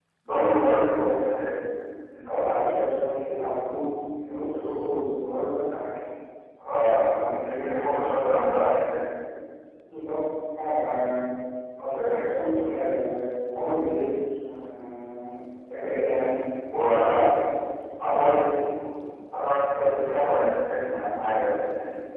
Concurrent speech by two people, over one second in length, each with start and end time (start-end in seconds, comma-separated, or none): none